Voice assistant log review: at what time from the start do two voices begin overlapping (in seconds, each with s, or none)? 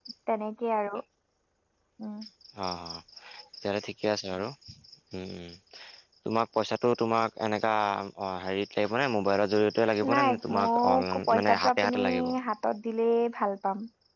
10.0 s